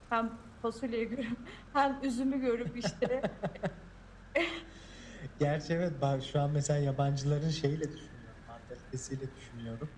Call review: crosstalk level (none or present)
none